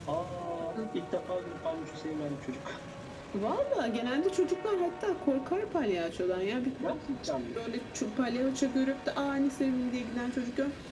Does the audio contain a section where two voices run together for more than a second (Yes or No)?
No